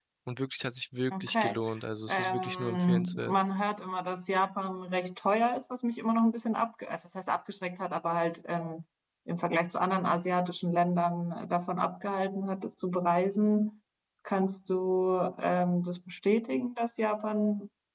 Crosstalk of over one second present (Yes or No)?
Yes